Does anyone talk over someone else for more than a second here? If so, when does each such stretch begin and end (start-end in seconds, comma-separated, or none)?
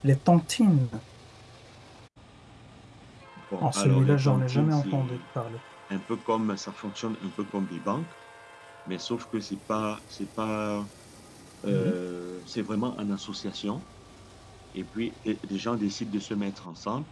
3.6-5.2